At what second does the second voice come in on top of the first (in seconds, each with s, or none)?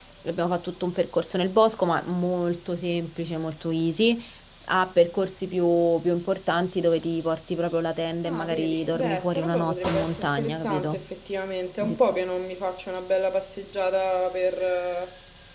8.2 s